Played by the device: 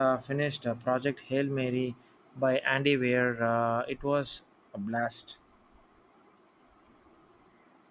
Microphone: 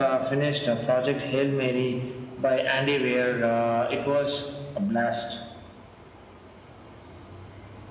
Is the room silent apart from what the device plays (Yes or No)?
Yes